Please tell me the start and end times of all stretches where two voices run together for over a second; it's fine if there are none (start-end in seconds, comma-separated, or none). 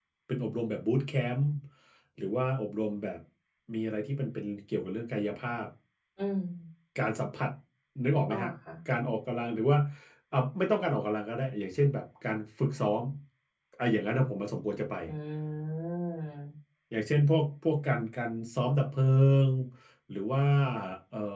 none